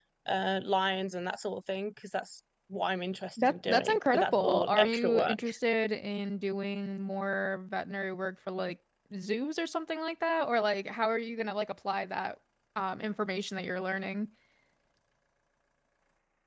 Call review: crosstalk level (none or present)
present